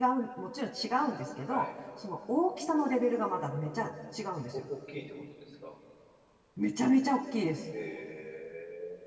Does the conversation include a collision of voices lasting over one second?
No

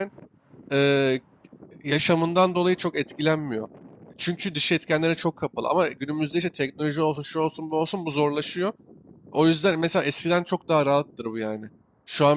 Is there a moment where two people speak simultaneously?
No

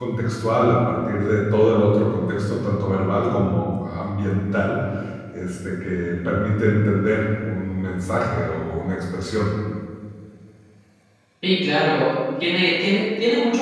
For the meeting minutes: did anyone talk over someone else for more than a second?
No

